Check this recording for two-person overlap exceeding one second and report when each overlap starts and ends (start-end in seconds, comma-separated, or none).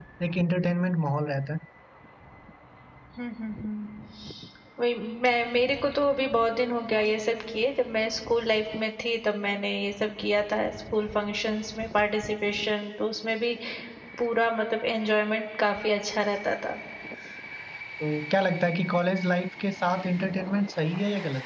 none